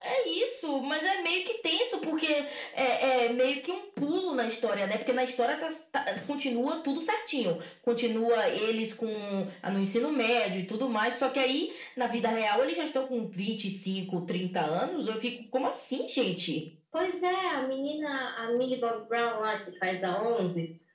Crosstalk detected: No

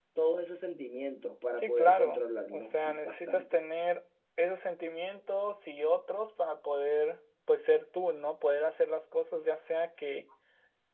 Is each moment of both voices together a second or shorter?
No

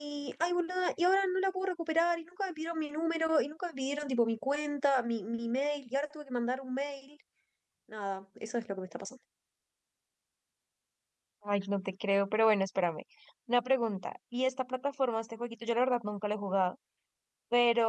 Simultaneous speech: No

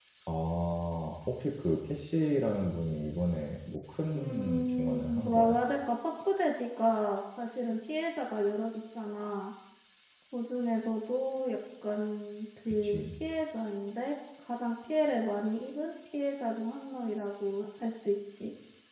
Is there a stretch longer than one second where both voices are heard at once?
Yes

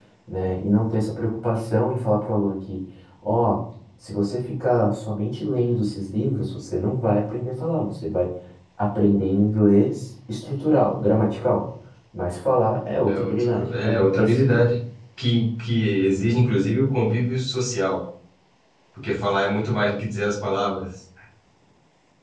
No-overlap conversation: No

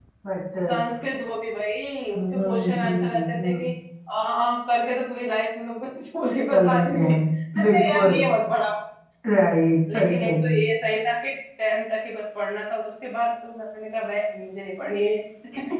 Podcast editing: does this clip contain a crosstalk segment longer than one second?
Yes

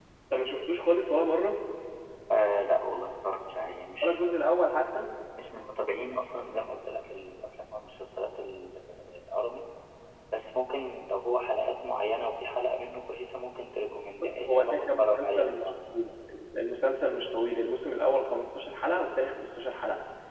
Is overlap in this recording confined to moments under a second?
No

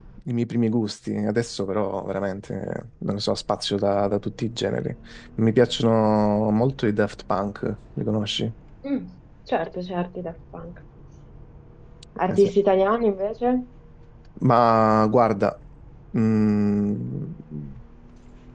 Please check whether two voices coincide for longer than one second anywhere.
No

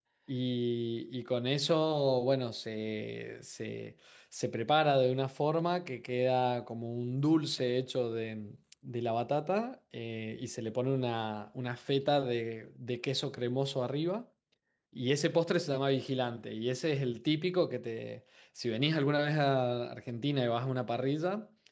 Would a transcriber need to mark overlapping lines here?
No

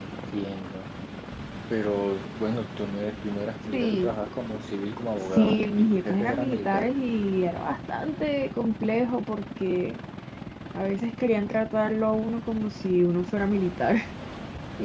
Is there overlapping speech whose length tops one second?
Yes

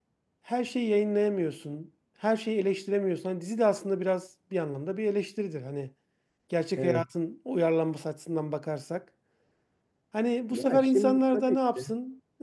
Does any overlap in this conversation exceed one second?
Yes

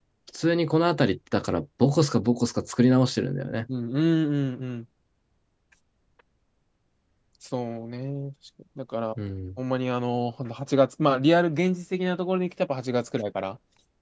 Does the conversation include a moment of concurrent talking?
No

